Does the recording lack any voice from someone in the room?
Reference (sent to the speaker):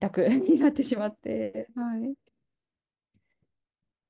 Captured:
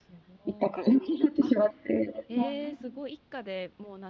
No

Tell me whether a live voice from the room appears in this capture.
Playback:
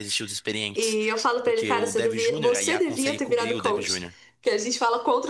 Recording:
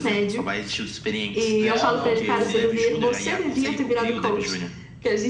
Yes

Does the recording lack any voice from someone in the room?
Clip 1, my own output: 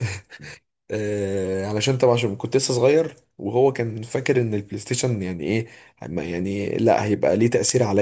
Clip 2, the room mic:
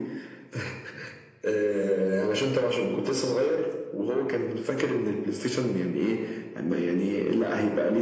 Yes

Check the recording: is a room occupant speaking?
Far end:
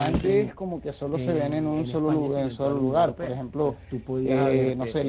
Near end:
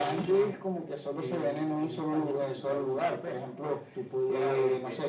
No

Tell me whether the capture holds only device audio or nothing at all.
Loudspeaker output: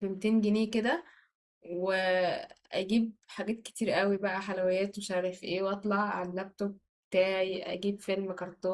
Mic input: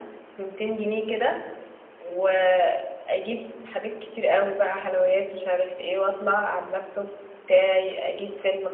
Yes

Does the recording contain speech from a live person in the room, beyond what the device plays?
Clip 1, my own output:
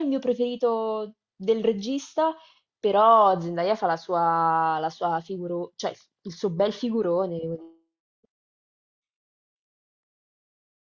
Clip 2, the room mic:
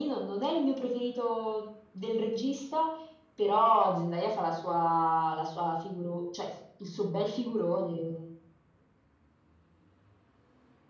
No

